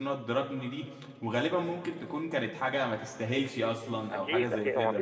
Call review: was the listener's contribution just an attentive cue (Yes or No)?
No